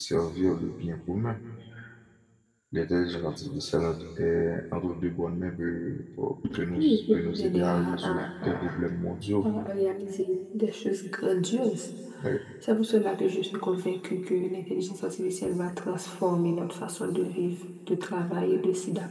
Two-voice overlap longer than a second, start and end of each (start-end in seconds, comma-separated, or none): 6.7-8.7